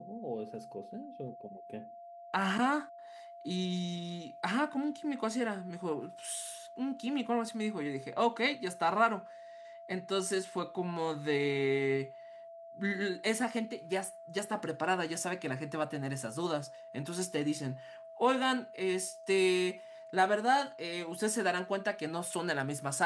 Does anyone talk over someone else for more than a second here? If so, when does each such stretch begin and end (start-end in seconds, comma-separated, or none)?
none